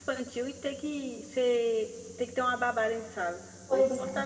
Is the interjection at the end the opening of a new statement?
Yes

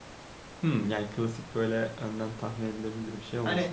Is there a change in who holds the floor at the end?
Yes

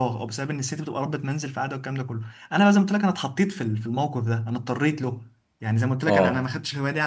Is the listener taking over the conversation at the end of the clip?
No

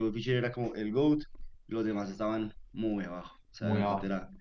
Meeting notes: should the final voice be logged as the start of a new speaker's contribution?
Yes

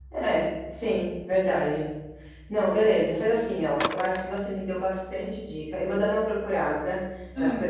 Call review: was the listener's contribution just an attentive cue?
Yes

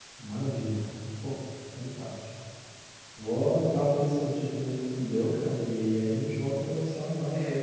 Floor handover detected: Yes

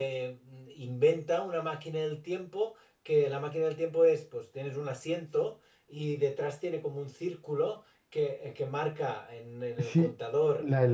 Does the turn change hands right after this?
Yes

